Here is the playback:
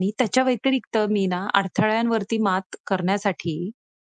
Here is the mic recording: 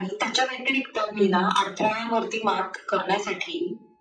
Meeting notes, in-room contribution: present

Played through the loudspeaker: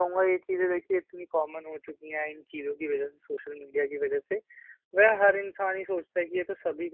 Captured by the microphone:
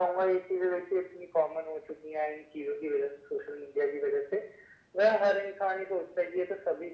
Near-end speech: none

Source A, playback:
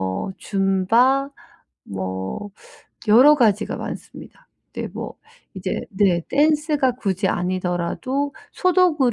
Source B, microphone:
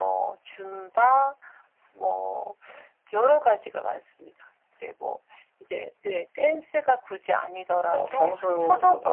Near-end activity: present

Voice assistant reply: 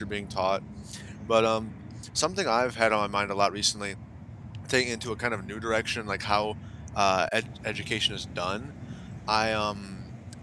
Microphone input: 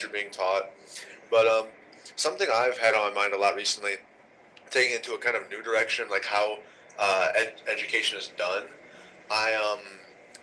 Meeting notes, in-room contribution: none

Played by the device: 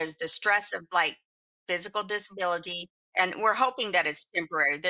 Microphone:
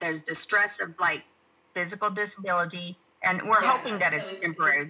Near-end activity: present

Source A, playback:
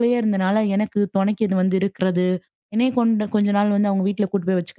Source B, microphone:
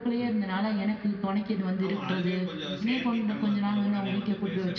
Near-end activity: present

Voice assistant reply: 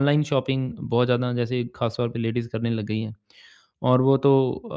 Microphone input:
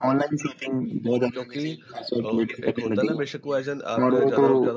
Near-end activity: present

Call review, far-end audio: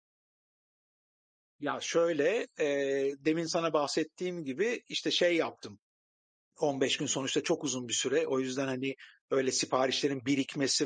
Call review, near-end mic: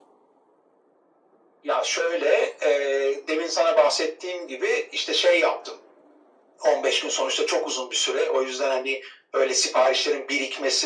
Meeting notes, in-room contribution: none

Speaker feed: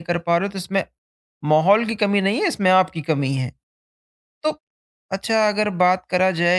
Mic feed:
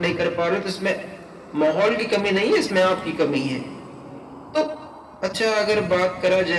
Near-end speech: none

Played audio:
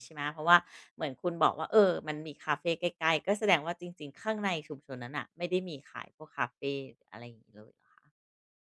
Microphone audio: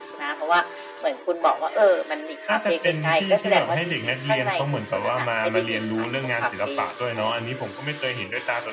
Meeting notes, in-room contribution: present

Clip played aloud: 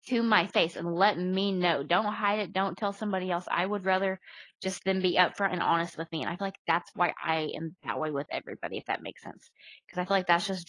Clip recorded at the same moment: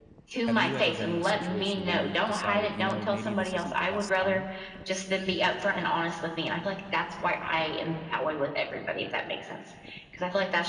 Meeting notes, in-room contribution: present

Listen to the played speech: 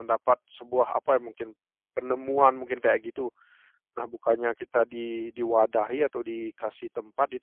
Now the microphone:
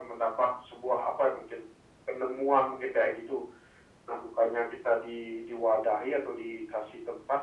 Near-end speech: none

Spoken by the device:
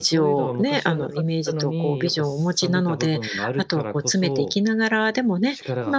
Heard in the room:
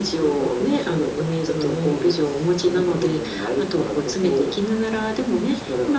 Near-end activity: none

